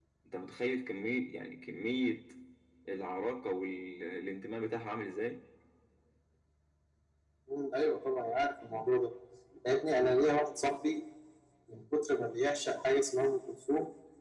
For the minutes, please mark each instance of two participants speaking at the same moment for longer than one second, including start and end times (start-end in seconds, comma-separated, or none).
none